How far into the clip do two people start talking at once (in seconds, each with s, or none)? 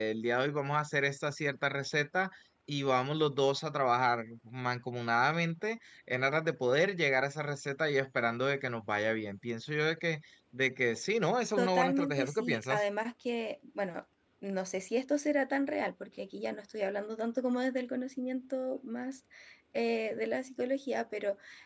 11.6 s